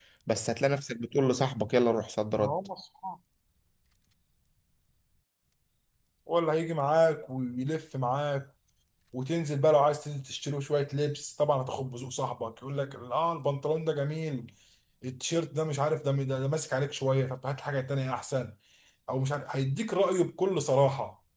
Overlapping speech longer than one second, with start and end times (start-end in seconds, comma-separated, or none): none